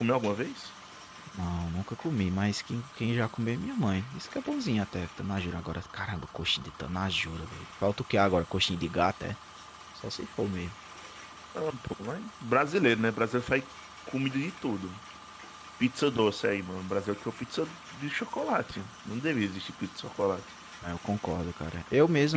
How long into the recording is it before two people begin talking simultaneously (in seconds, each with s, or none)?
none